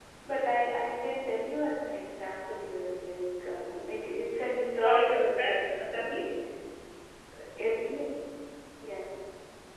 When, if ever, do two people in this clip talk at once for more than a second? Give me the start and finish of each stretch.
4.8-6.3

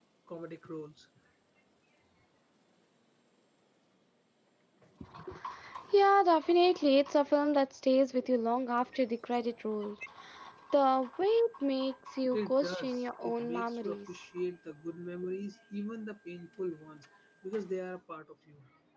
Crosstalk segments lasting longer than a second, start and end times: 12.3-14.2

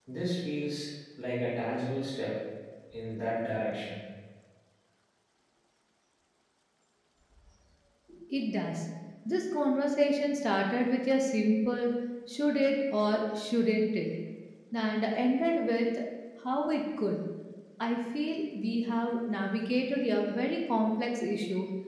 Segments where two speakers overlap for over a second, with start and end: none

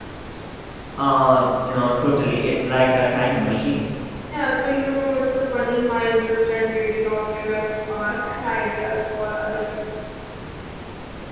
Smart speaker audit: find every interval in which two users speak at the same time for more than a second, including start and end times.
none

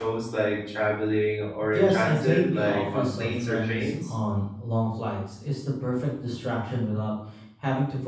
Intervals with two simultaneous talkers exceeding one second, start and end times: 1.7-4.1

